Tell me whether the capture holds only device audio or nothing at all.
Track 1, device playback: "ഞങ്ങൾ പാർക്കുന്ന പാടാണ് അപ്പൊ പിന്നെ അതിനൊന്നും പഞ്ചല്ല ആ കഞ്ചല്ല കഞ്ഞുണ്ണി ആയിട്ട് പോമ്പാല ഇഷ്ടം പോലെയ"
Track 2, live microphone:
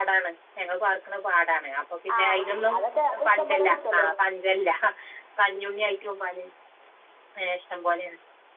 No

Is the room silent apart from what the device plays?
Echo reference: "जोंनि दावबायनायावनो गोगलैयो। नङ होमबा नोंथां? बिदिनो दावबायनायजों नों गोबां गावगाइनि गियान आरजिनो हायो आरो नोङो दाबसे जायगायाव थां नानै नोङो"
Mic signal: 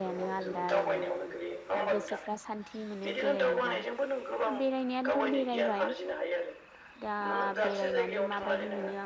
No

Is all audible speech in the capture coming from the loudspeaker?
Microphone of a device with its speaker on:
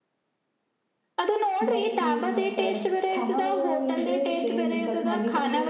No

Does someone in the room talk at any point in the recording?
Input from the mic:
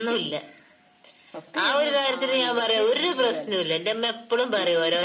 Yes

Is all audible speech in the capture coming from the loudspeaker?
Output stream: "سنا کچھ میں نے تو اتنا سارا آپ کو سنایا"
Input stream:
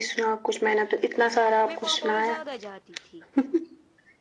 No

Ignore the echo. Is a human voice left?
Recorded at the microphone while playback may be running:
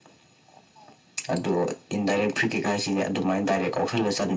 No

